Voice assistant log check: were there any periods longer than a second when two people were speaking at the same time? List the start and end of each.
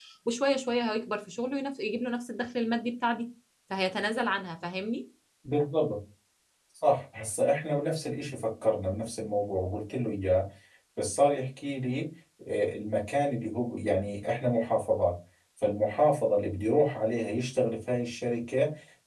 none

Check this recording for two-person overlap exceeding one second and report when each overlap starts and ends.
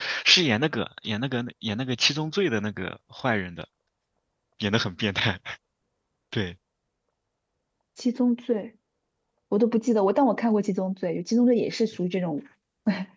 none

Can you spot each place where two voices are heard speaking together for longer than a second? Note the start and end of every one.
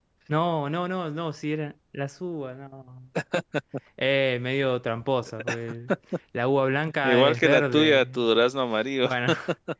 7.0-8.3

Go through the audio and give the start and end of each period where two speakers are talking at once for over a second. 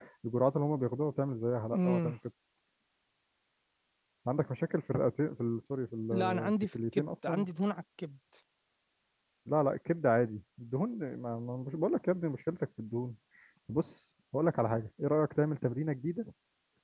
6.1-7.5

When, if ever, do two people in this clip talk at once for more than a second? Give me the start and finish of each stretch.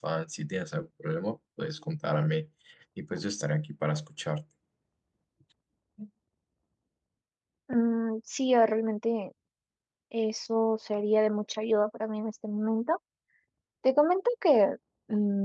none

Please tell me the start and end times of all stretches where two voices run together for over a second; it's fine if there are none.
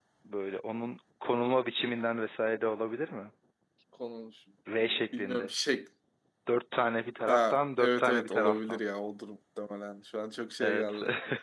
7.3-8.8

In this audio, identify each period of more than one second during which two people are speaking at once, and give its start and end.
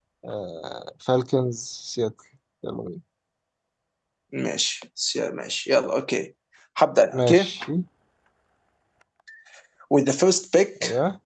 none

